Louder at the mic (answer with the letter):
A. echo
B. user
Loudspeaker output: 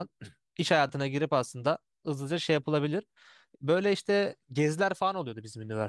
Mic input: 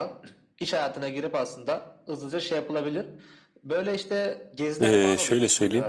B